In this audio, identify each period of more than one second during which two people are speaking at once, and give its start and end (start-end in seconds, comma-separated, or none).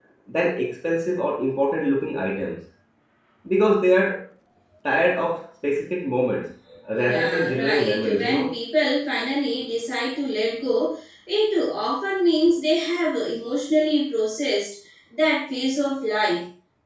7.0-8.4